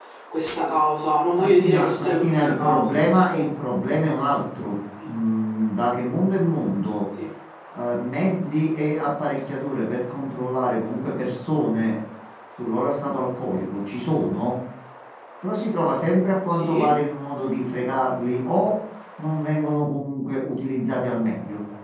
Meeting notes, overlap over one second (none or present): present